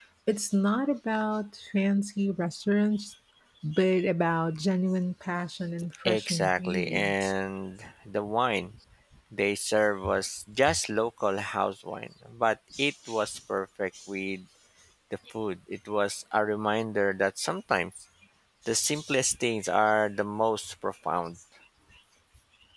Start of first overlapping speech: 6.0 s

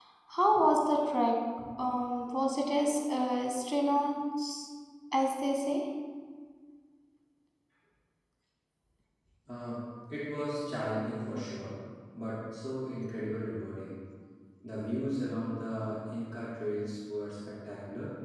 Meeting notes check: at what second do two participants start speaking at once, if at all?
none

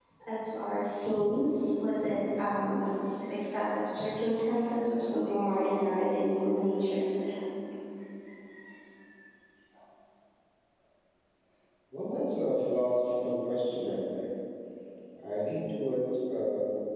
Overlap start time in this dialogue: none

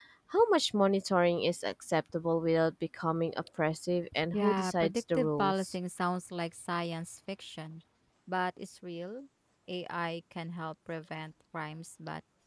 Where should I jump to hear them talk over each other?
4.3 s

